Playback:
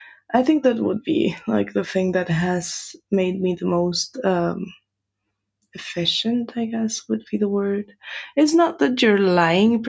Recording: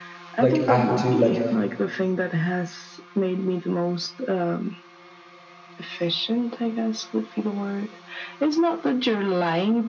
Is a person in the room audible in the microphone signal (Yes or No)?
Yes